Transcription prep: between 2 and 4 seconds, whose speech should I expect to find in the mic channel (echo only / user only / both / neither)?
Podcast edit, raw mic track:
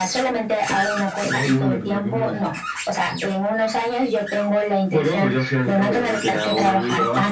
echo only